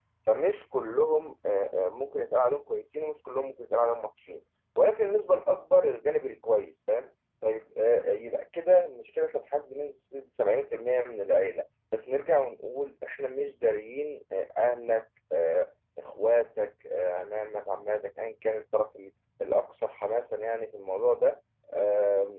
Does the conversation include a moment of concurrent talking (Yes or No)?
No